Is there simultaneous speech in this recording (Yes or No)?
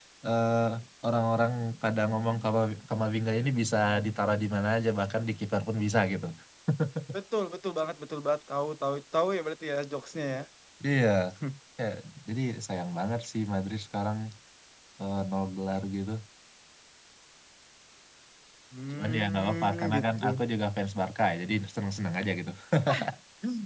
Yes